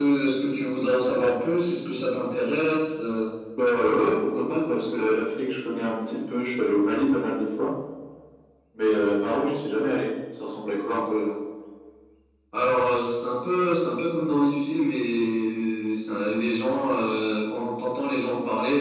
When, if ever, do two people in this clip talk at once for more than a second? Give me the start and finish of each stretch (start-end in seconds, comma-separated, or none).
none